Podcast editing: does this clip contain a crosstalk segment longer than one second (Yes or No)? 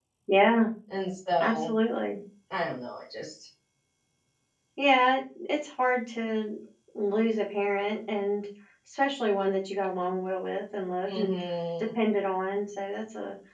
No